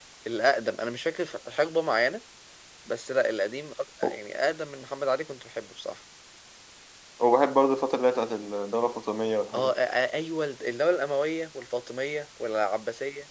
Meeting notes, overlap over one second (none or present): none